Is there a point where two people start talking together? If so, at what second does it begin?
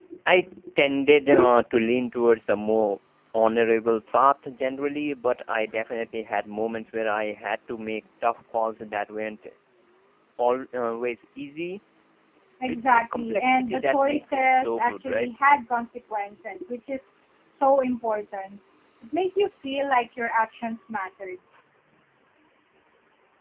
12.7 s

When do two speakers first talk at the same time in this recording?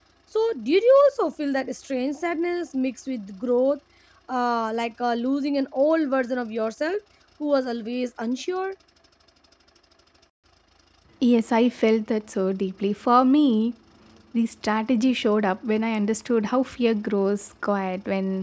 none

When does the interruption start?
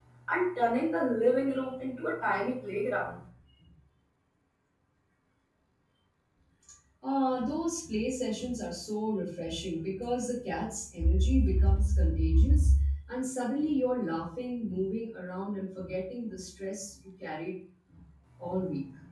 none

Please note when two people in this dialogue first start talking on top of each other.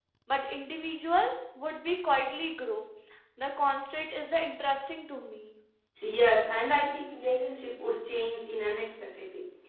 none

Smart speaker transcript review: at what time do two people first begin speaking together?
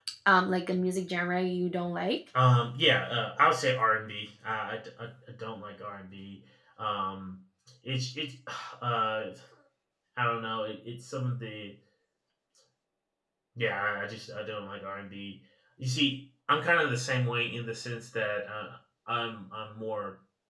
none

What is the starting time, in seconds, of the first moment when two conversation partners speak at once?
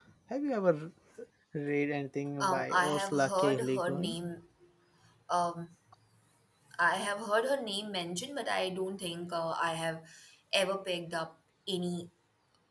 2.4 s

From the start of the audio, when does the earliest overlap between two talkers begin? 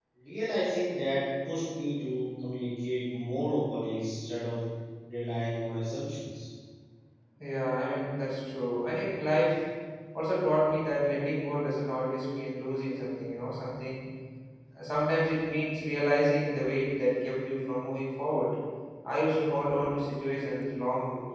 none

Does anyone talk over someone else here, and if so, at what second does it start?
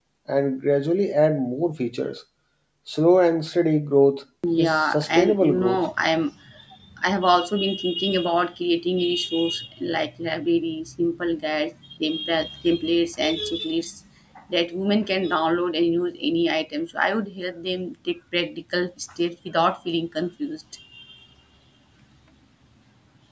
4.4 s

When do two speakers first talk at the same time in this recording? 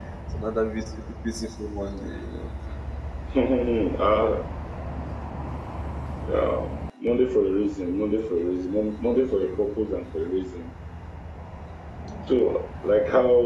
none

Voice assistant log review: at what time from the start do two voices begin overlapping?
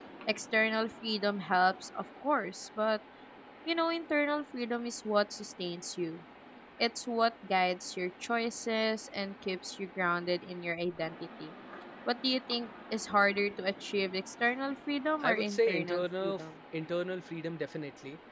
15.2 s

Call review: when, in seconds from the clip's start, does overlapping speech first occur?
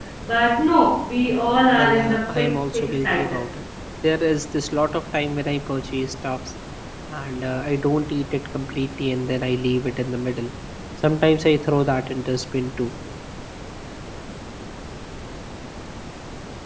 1.8 s

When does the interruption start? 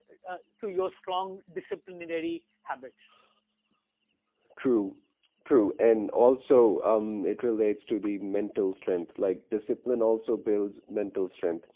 none

